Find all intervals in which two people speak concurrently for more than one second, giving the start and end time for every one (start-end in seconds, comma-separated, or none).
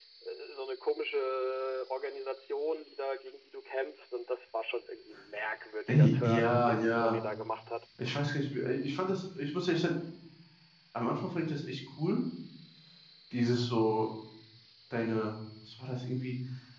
5.9-7.2